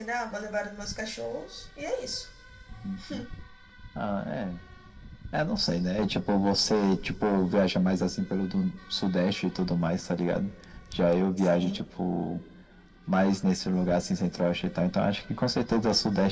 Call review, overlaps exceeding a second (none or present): none